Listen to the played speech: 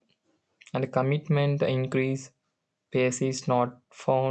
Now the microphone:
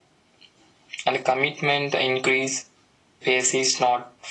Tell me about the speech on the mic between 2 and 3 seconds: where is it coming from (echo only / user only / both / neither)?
echo only